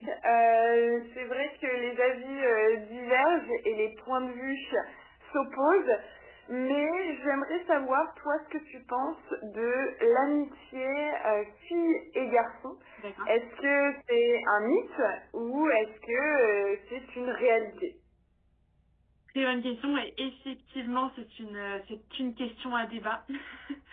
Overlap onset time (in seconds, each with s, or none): none